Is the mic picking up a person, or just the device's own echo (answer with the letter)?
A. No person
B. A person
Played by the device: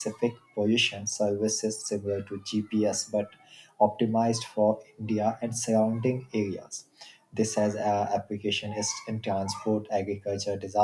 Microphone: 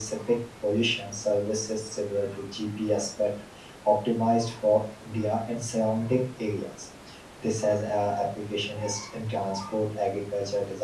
A